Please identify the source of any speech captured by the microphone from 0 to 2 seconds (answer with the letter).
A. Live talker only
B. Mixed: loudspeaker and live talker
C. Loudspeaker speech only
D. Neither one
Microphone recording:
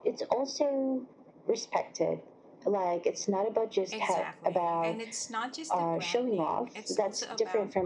C